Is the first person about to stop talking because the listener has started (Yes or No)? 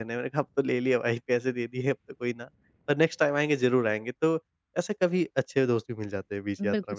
Yes